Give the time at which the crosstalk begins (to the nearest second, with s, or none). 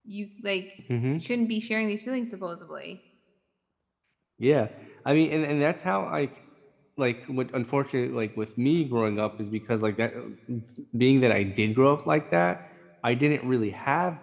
none